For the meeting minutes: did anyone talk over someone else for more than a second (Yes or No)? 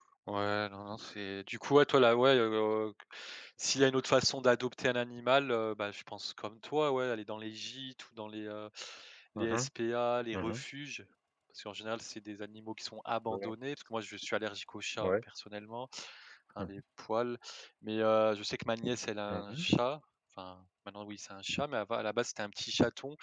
No